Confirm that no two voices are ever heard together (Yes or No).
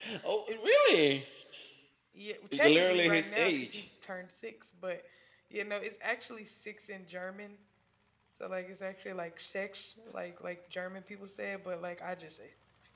No